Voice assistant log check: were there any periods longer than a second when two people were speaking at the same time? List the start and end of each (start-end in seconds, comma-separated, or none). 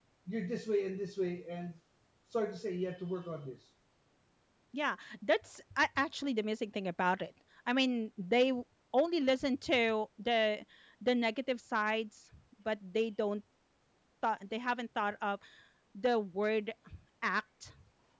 none